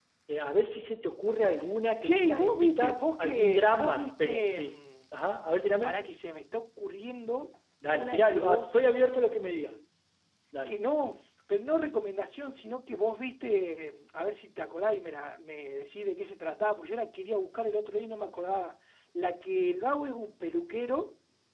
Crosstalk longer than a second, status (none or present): present